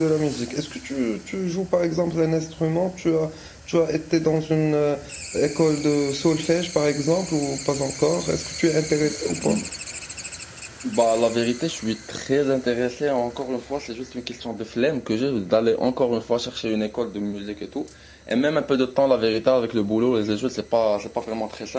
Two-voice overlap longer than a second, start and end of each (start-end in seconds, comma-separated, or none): none